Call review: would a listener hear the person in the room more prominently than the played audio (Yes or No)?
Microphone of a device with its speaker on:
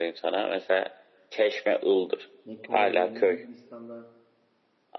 No